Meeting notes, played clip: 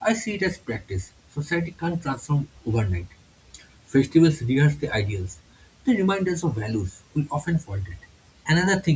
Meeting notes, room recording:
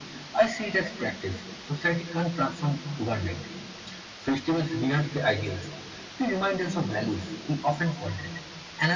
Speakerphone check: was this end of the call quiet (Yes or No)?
Yes